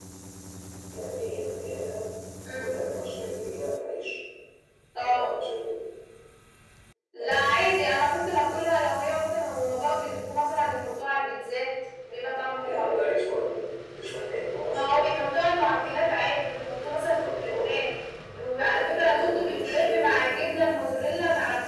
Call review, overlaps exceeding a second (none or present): present